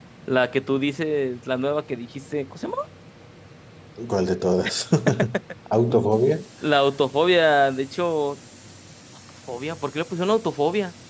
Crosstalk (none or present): none